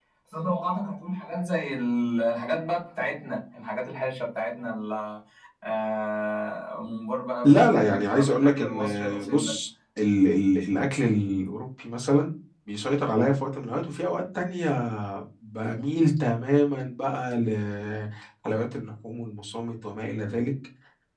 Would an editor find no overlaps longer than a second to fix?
No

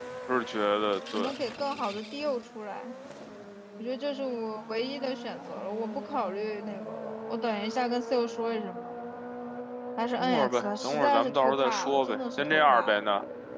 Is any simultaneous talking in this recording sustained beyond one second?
Yes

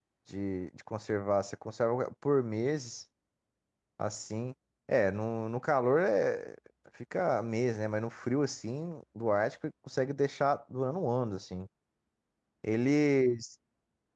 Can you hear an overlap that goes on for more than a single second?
No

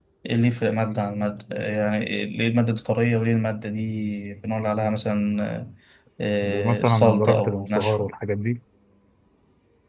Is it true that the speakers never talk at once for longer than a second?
No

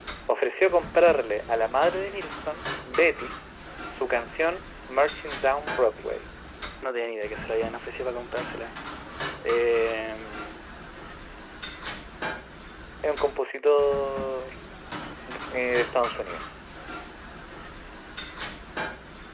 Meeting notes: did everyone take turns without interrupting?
Yes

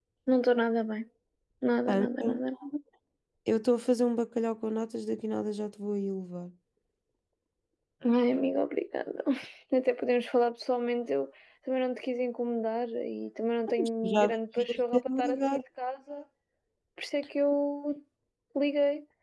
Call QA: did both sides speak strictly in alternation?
No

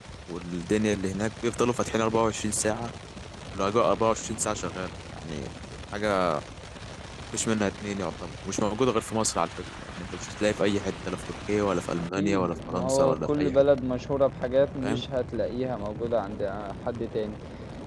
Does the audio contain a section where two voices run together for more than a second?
Yes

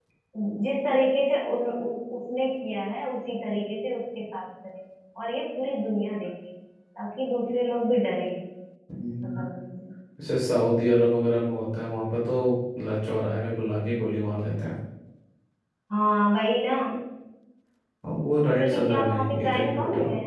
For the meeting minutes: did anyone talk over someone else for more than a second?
Yes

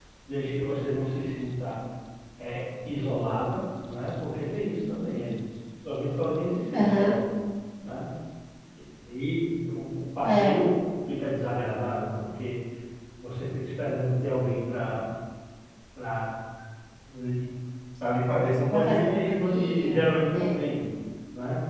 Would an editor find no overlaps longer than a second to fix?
No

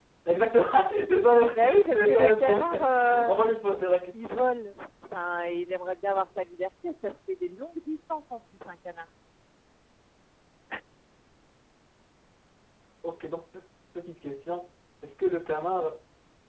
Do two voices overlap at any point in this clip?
Yes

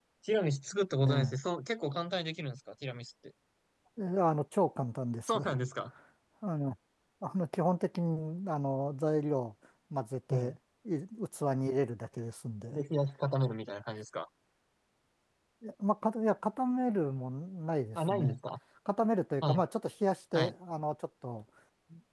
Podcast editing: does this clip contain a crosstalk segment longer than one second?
No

